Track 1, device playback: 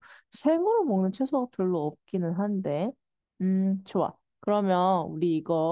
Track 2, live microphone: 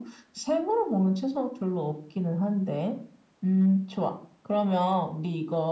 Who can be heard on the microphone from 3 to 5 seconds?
echo only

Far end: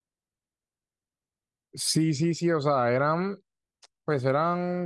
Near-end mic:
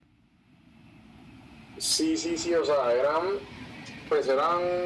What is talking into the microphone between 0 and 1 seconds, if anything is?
neither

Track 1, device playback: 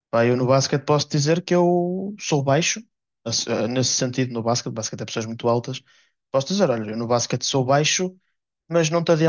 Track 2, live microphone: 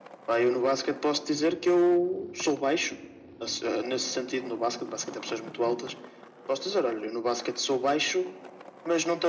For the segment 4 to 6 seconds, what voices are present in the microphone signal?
echo only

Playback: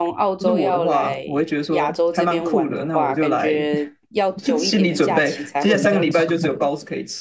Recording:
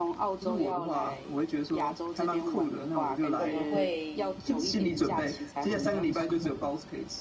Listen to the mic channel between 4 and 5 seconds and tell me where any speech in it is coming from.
both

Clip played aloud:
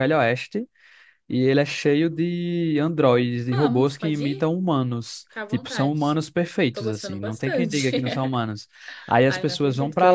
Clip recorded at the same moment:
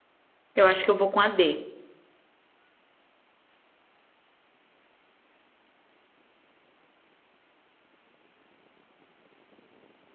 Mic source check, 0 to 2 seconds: user only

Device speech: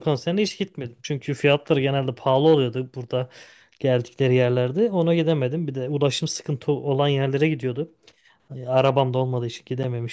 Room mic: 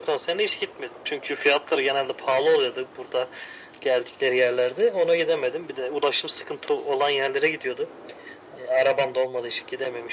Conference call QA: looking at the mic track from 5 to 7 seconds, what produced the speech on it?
echo only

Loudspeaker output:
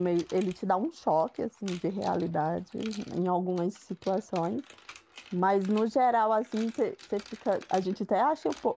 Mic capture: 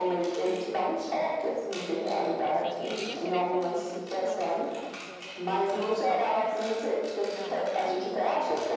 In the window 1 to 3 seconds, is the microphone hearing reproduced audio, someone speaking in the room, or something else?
both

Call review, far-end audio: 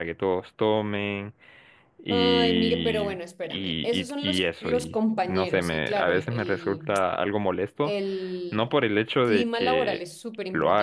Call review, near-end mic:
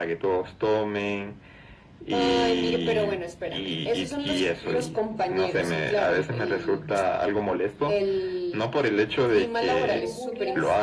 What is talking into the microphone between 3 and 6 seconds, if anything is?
echo only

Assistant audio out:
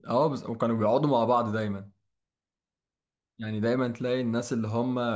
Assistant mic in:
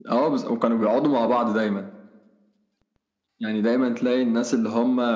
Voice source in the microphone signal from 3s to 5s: echo only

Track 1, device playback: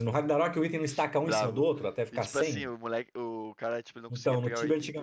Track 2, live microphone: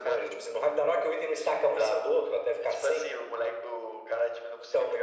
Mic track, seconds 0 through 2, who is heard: echo only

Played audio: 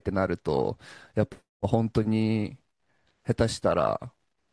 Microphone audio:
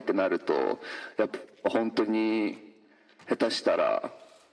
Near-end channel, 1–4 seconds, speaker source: echo only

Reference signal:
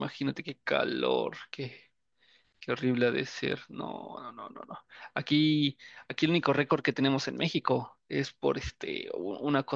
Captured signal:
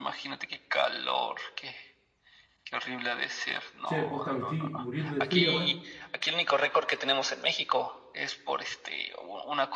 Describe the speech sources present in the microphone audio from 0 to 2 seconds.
echo only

